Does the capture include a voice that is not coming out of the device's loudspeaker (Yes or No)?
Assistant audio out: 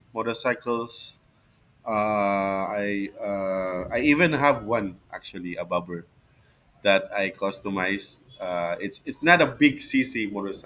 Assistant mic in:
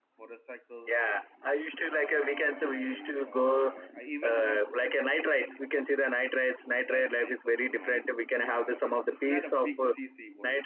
Yes